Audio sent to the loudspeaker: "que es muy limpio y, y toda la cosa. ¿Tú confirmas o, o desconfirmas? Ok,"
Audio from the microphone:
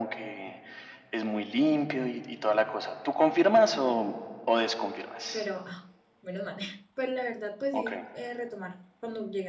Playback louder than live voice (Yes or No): Yes